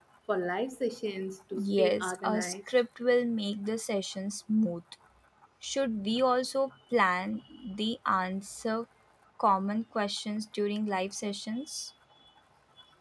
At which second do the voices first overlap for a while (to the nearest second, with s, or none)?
2 s